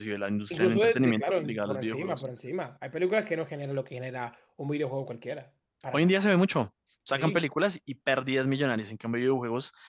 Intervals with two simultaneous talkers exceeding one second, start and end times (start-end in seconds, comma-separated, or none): 0.5-2.2